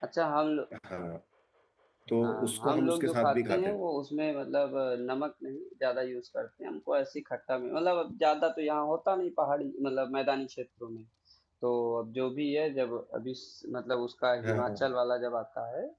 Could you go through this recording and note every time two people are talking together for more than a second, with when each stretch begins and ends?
2.2-3.8

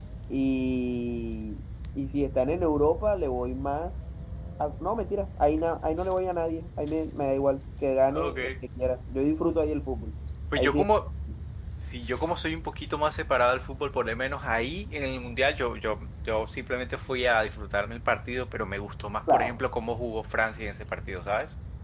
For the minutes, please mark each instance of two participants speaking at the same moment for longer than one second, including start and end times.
none

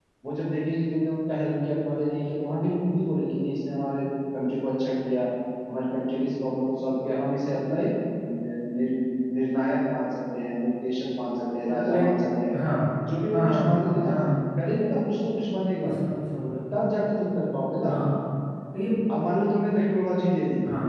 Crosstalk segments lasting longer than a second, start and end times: none

